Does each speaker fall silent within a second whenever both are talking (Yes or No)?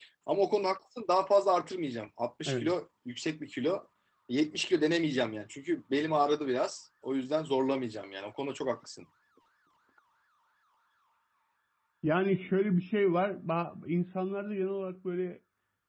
Yes